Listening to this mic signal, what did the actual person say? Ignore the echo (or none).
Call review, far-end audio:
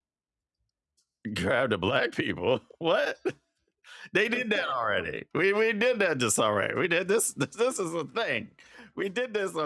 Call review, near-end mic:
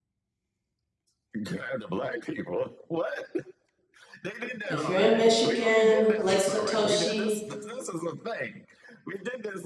If you're in Michigan, Lake Satoshi,